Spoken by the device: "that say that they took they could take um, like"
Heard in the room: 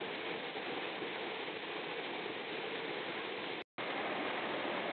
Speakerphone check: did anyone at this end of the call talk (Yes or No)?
No